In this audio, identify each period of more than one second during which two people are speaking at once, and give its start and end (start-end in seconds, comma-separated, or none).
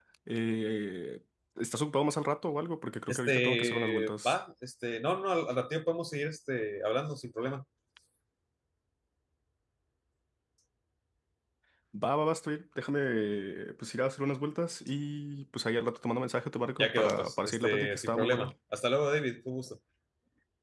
3.1-4.4, 16.8-18.5